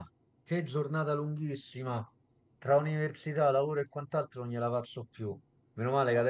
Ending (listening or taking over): listening